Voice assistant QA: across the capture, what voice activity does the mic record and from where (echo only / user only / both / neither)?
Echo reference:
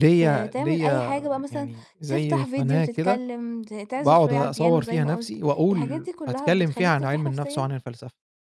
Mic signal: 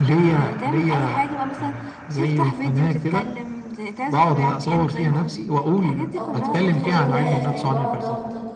both